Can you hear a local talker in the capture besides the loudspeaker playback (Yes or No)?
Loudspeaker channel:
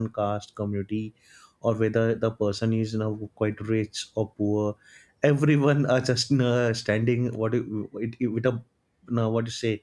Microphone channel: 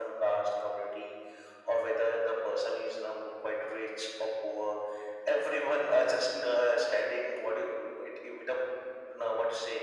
No